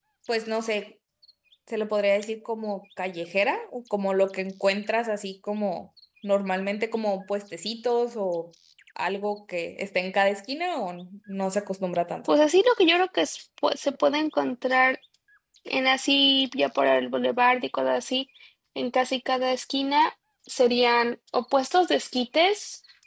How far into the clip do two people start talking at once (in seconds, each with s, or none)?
none